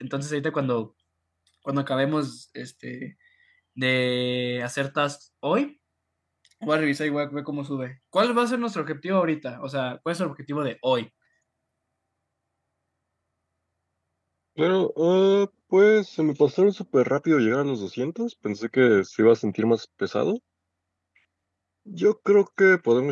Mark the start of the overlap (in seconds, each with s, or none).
none